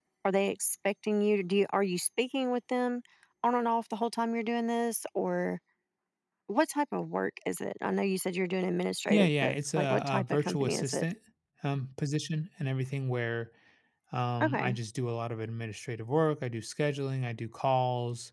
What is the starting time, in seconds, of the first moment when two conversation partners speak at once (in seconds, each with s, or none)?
9.1 s